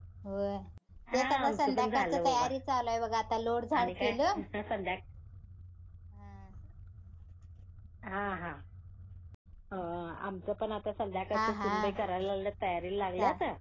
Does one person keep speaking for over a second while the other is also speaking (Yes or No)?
Yes